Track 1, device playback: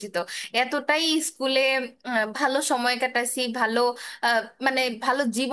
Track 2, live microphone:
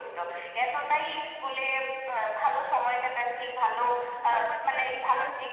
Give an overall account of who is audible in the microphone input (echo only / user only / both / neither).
both